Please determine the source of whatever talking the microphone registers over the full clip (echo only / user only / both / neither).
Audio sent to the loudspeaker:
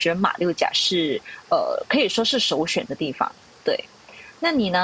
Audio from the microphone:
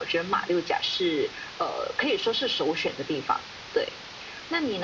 echo only